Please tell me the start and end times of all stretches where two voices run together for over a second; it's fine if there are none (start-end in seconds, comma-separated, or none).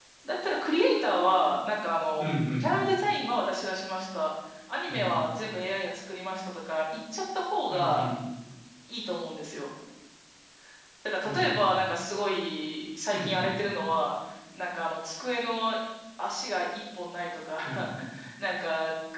none